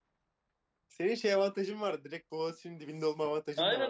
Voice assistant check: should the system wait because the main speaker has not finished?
No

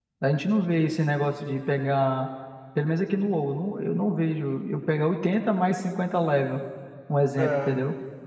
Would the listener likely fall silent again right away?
No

